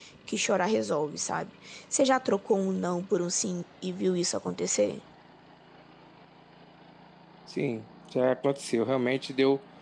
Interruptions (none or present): none